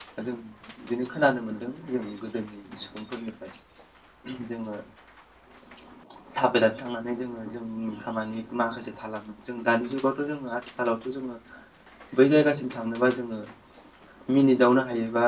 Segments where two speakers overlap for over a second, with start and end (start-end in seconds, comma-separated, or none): none